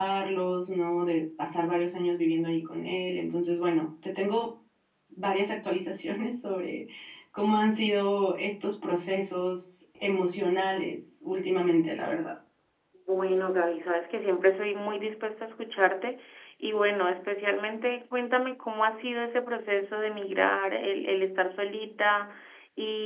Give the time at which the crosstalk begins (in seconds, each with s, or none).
none